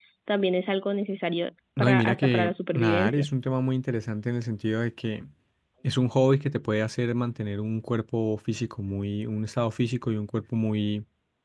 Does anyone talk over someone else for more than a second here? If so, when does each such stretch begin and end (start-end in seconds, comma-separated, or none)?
1.8-3.3